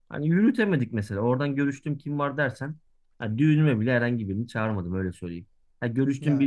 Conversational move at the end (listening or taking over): listening